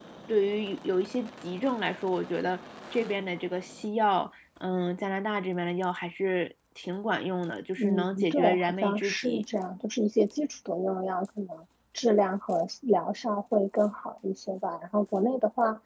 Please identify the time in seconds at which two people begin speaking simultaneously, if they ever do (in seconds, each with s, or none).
7.8 s